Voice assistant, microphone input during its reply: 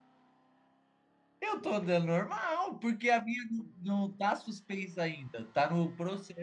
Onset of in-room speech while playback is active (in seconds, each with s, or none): 1.4 s